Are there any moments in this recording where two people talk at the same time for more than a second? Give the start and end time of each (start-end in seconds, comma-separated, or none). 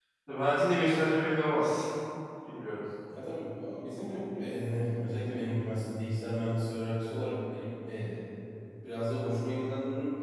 none